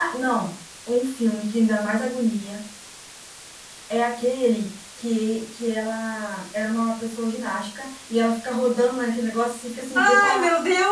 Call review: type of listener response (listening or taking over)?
taking over